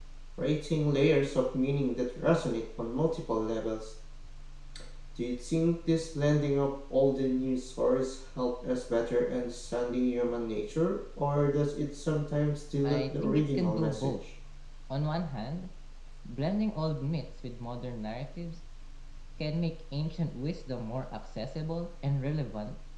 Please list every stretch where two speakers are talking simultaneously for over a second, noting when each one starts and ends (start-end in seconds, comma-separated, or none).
12.8-14.1